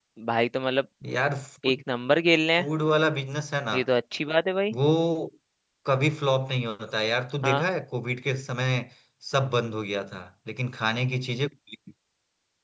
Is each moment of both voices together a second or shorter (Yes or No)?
Yes